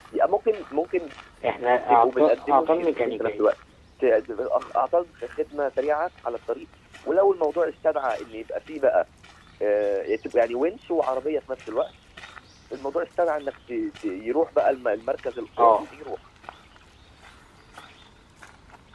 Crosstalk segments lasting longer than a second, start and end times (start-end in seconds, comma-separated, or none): 1.9-3.5